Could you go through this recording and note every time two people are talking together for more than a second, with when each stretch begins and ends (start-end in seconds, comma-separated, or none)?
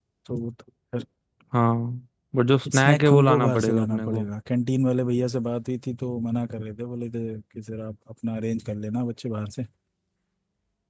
2.7-4.3